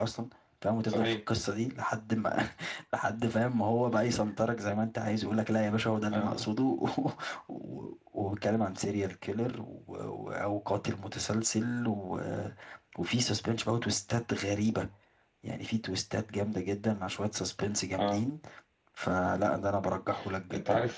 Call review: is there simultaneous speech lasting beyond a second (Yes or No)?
No